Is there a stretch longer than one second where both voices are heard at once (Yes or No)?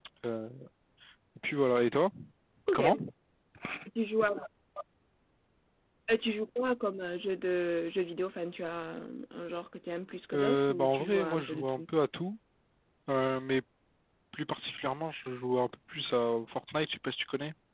Yes